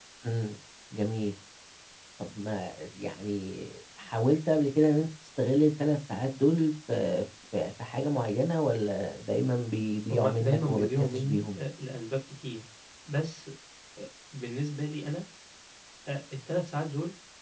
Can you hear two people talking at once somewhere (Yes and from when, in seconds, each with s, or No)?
Yes, from 10.1 s